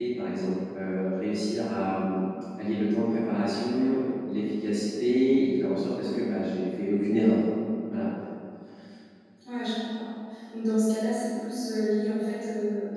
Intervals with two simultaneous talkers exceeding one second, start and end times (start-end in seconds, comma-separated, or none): none